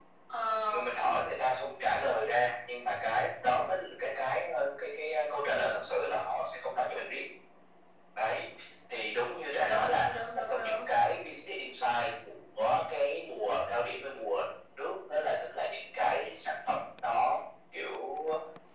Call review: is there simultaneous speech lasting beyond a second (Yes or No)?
Yes